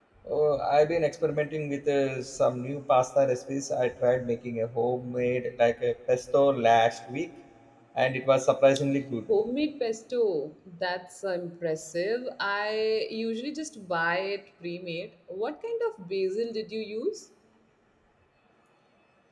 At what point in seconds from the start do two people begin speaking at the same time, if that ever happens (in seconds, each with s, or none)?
none